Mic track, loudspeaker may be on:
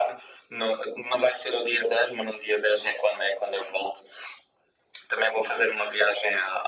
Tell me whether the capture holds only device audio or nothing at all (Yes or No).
Yes